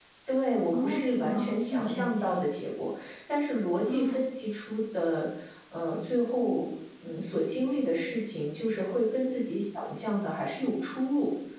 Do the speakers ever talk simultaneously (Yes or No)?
Yes